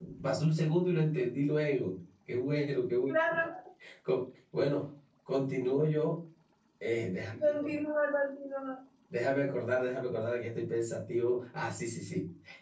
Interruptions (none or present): none